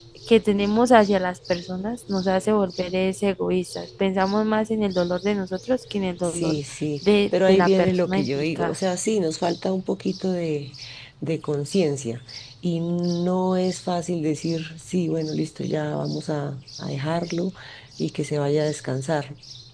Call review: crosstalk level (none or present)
present